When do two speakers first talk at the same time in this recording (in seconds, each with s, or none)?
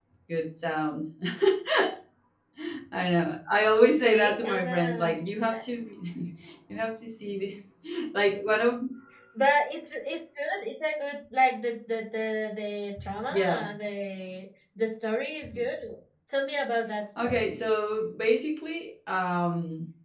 3.8 s